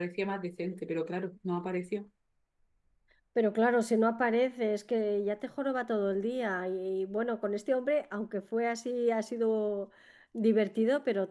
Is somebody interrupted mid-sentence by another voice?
No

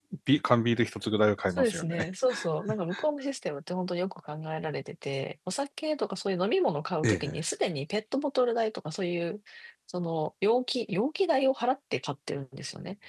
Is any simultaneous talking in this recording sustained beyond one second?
No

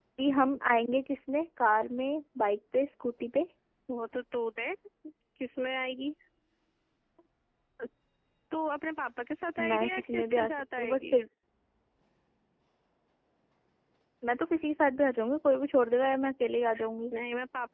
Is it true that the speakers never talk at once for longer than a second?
No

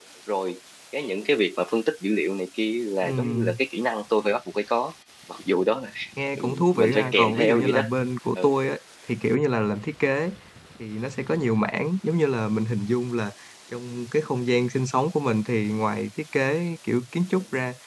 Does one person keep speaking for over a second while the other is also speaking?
Yes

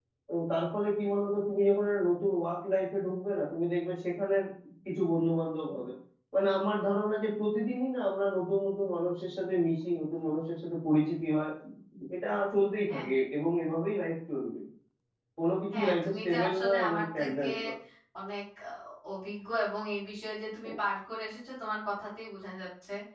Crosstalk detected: Yes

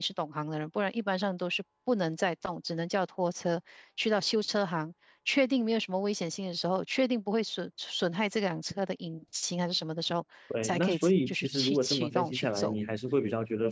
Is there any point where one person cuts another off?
Yes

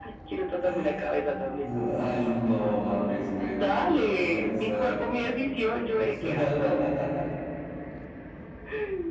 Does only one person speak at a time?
No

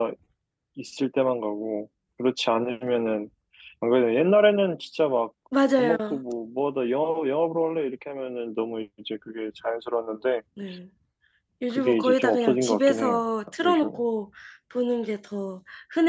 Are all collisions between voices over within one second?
No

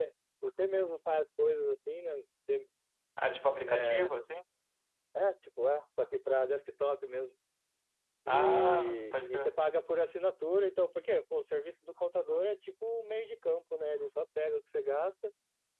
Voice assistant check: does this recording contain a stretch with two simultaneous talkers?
Yes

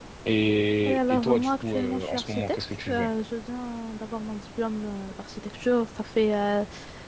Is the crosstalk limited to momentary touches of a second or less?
No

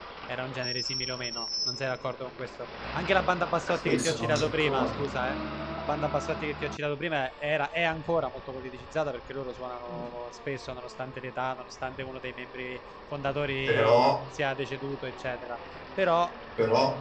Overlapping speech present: Yes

